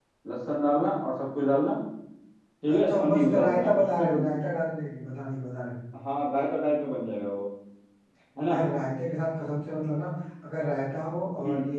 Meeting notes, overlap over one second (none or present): present